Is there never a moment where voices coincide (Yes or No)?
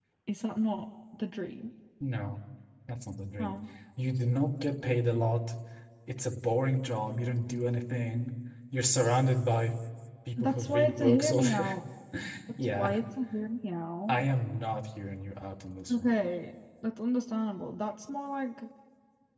No